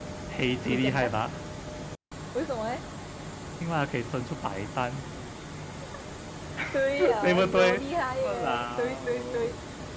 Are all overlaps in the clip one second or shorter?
No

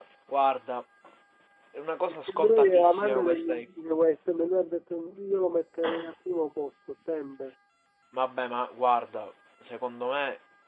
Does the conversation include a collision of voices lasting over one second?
Yes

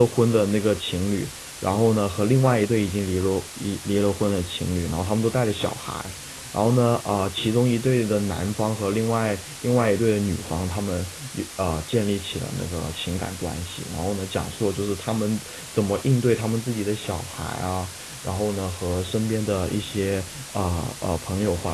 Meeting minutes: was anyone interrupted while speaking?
No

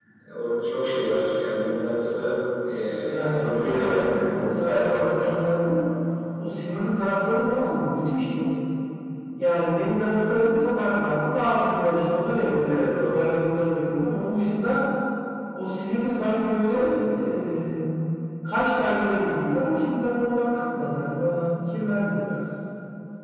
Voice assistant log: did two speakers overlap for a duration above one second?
Yes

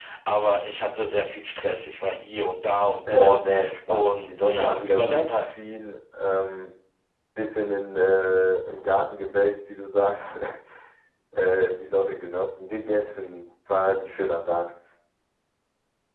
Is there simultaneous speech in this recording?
Yes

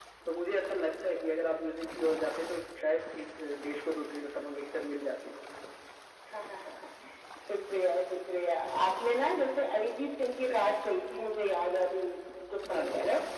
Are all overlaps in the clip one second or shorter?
Yes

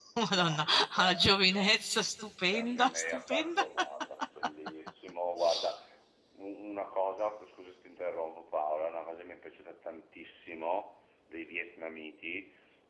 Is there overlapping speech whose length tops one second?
Yes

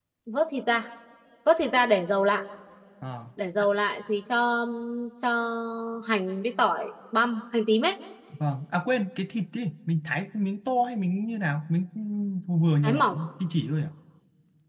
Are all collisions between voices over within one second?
Yes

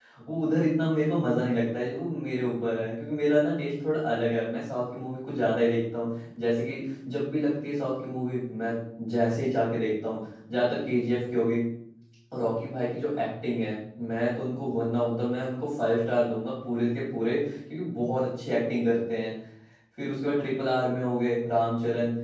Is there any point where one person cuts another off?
No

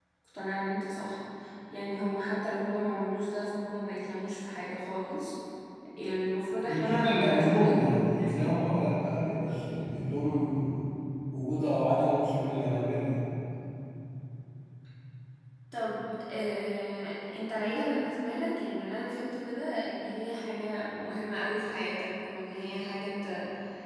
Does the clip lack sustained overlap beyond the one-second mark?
No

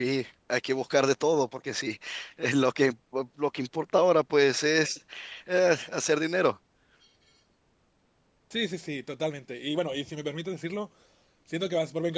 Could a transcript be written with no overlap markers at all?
Yes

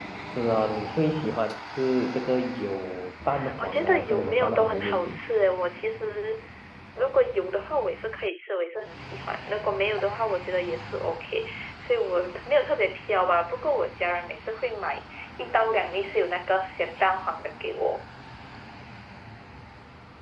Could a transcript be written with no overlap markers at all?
No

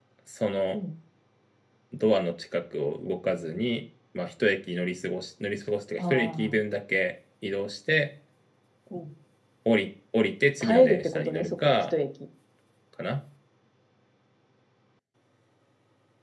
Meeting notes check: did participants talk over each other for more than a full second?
Yes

